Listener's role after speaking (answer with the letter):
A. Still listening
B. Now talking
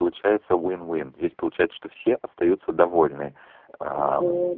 A